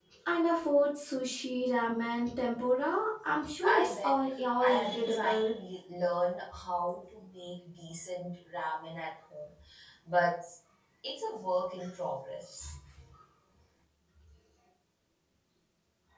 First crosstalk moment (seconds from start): 3.6 s

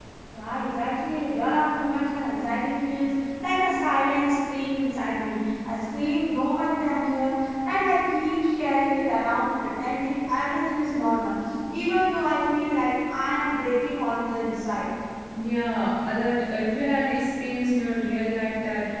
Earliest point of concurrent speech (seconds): none

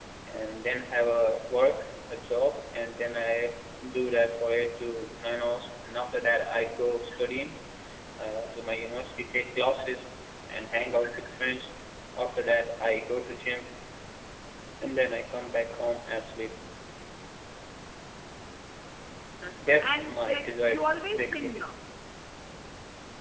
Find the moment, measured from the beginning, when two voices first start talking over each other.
19.7 s

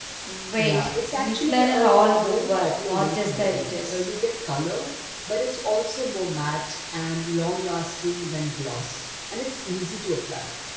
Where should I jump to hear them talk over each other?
0.6 s

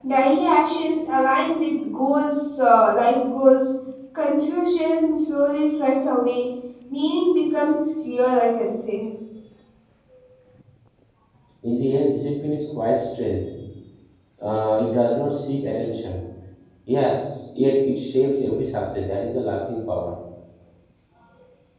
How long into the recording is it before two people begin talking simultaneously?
none

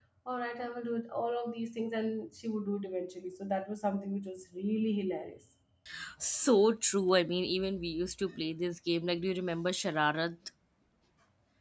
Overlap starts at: none

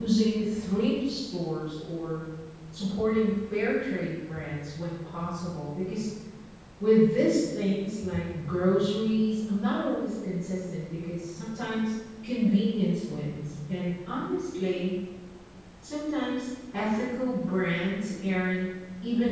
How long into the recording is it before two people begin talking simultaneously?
none

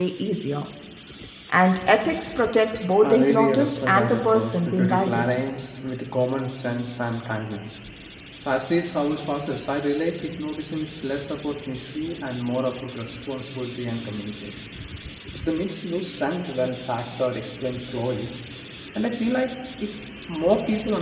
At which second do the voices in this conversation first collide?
3.0 s

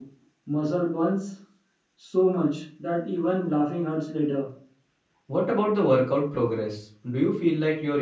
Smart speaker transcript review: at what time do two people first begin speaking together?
none

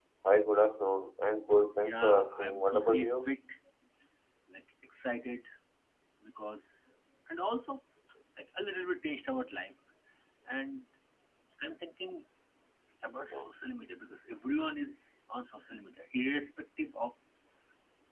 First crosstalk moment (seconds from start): 1.8 s

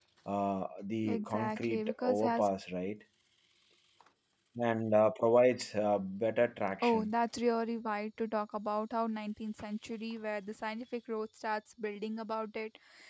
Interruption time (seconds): 1.1 s

